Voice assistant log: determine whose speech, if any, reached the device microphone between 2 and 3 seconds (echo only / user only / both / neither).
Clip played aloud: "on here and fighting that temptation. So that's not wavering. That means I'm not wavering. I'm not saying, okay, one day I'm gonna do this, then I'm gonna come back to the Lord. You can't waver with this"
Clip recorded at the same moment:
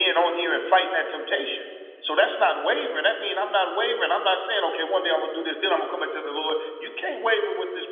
echo only